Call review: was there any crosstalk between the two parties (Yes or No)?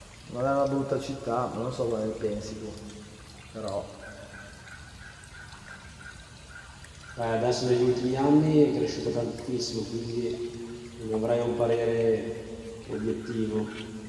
No